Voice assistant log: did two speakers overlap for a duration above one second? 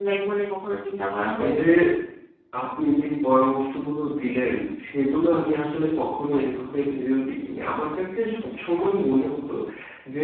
No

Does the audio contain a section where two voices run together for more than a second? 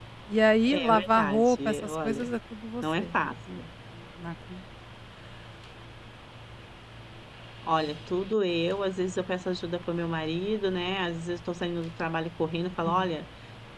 Yes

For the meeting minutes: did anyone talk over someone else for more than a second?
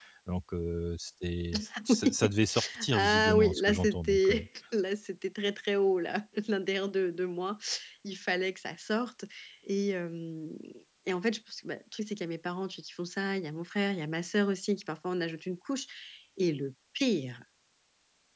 Yes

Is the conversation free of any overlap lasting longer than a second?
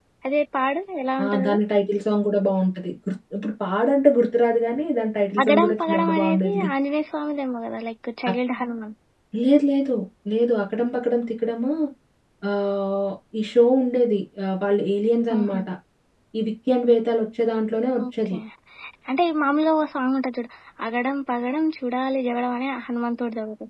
No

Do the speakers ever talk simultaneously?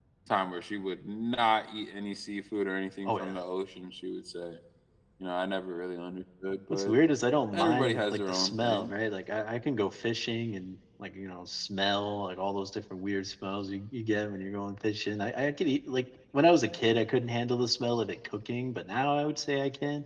Yes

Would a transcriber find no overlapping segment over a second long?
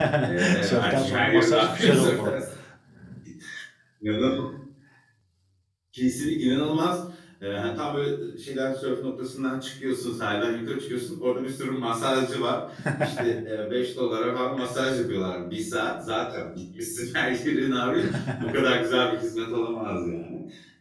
No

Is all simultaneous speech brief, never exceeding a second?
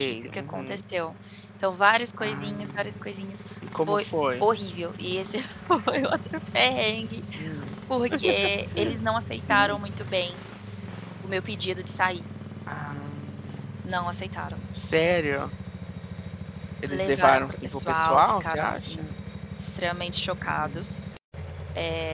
No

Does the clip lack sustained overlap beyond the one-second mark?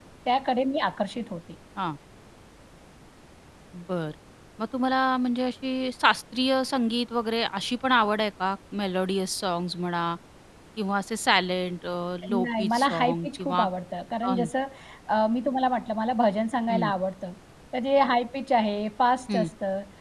No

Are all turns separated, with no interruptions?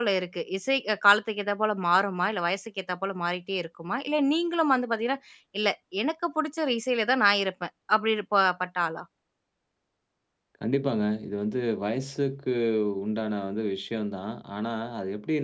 Yes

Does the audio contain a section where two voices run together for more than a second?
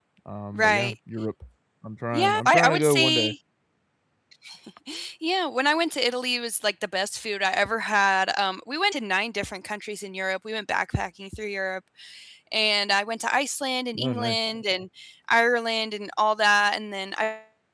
Yes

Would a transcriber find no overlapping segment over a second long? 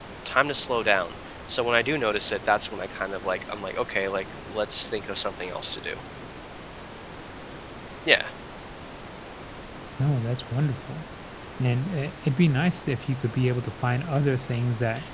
Yes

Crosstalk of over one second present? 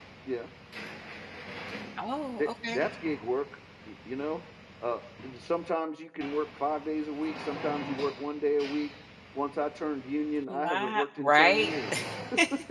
Yes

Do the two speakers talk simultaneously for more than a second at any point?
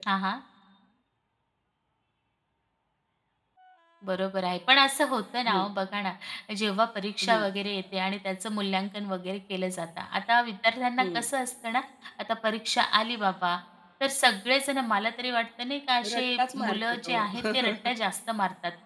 Yes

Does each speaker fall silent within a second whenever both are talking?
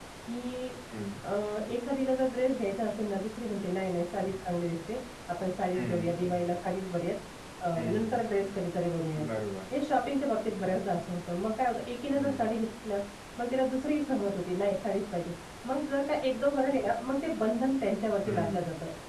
Yes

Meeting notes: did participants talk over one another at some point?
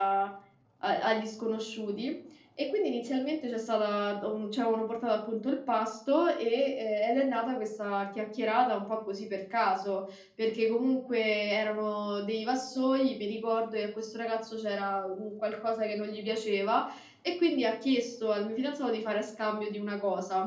No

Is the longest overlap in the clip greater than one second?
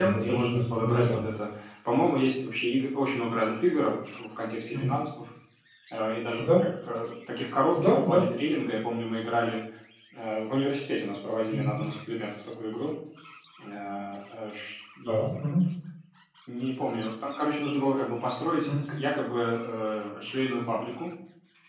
Yes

